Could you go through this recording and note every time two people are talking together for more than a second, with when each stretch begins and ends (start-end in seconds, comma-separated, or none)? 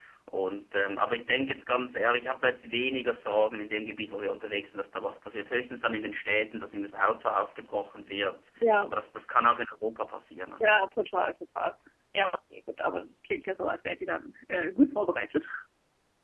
none